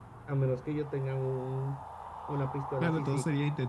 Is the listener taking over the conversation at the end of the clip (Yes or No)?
Yes